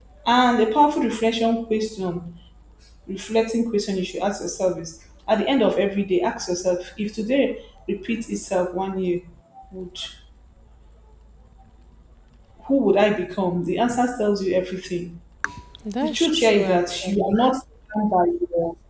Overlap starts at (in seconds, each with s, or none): 16.0 s